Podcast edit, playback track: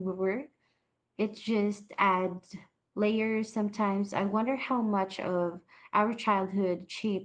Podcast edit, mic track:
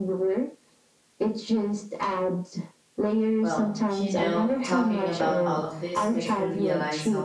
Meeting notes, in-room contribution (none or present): present